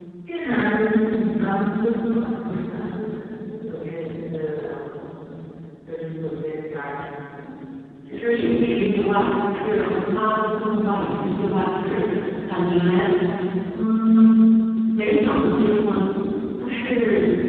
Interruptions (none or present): none